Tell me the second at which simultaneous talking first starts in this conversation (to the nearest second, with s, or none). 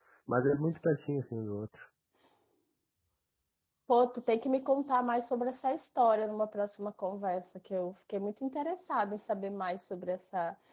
none